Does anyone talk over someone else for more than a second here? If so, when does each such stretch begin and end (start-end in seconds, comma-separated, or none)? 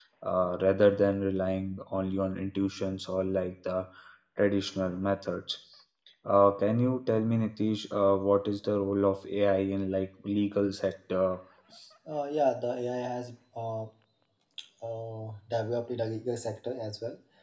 none